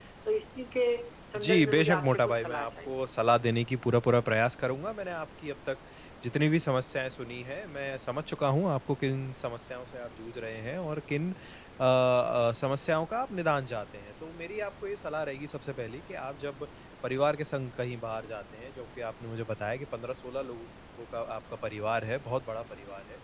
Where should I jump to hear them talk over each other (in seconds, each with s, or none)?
1.3 s